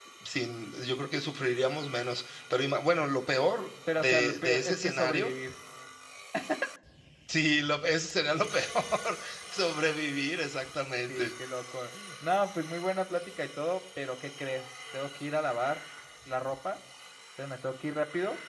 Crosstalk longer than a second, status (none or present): present